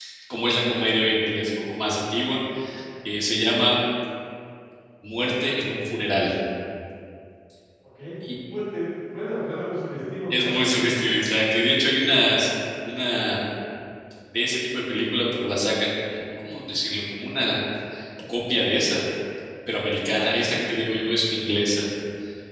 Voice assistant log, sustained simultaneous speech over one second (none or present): none